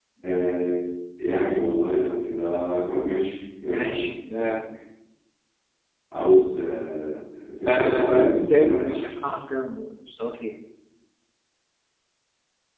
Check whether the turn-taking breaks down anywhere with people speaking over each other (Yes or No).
Yes